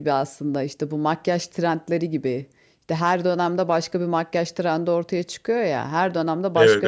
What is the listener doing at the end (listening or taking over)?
listening